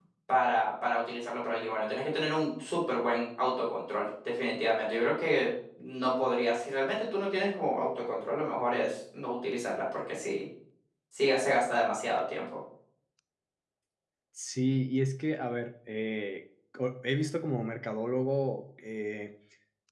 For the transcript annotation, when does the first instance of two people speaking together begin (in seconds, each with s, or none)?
none